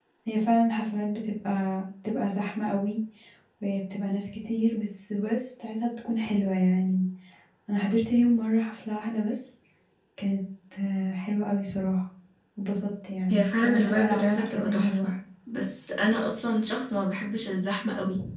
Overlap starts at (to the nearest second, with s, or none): 13 s